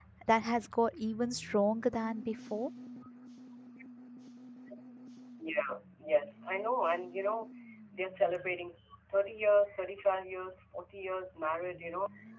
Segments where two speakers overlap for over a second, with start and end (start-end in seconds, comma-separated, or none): none